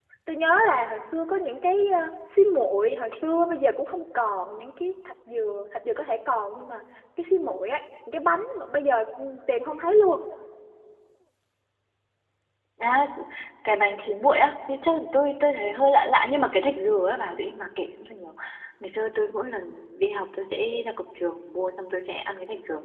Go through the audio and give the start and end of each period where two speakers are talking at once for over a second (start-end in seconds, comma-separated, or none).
none